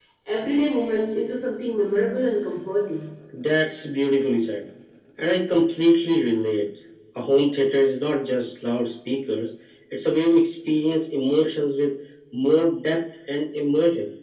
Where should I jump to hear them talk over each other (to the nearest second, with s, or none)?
none